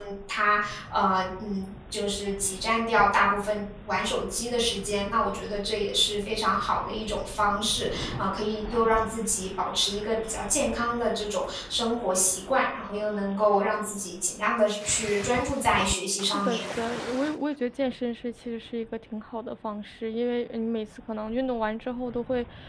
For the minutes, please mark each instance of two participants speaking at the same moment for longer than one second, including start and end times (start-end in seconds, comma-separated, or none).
none